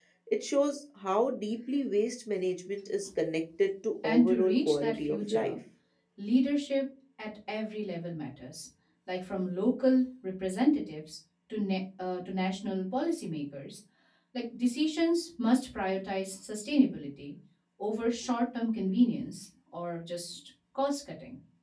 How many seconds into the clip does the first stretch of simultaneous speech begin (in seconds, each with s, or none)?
4.0 s